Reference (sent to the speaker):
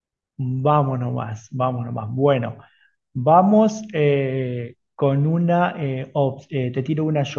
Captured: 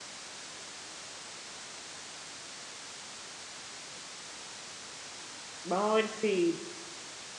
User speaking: Yes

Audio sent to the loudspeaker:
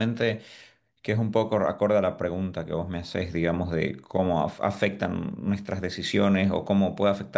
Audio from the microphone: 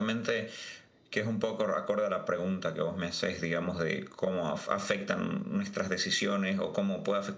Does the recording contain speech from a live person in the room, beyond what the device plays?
No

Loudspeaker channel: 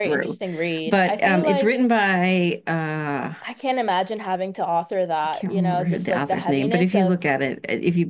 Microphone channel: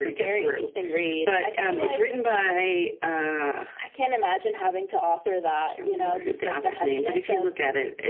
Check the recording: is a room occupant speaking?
No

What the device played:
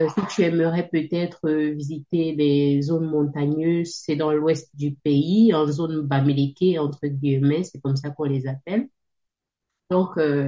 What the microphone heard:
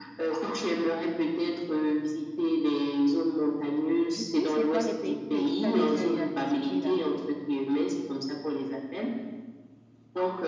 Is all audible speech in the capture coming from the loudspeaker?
No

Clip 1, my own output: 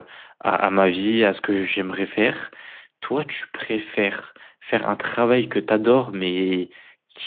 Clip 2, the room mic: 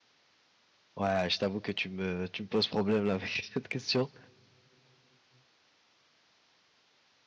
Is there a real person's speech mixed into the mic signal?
Yes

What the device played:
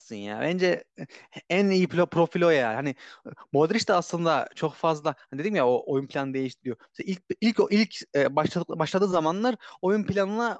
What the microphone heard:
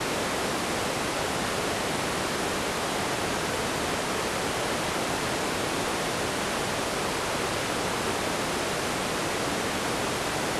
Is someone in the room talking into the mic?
No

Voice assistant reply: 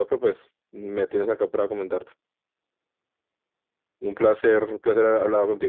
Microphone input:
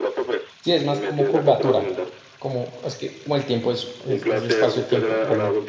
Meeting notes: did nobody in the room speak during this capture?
No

